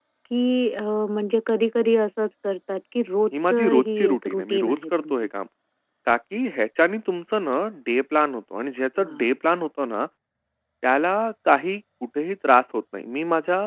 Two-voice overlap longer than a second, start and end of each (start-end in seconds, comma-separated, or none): 3.4-5.3